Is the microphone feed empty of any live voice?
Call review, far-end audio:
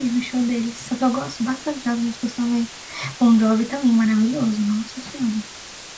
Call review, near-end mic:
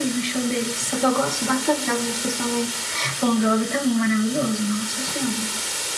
Yes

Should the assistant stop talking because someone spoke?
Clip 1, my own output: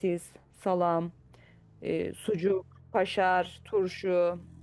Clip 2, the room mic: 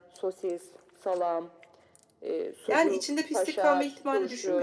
Yes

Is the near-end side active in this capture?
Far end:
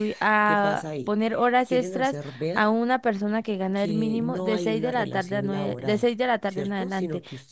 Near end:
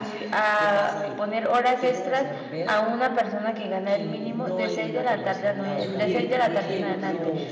Yes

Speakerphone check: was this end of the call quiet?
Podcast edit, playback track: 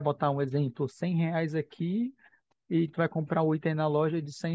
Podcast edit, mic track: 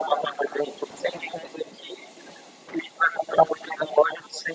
Yes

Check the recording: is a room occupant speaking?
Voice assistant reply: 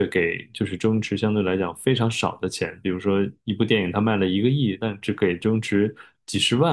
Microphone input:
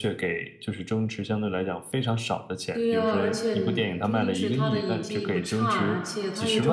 Yes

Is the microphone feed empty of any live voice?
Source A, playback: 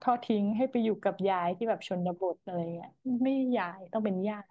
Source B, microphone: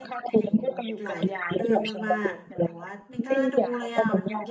No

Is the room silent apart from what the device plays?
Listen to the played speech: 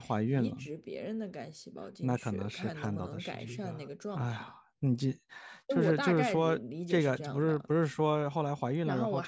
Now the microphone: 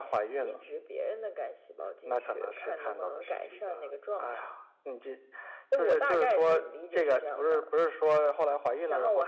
Yes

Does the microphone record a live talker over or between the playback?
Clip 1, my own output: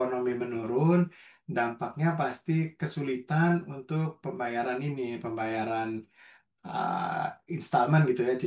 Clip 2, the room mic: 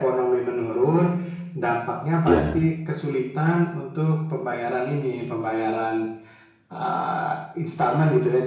Yes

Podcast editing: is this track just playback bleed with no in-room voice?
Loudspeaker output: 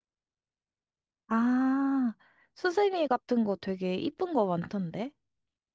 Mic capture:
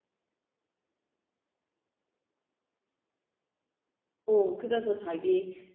No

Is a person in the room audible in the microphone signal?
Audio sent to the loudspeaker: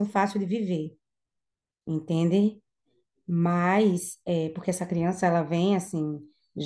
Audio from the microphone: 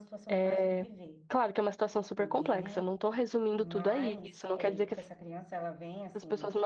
Yes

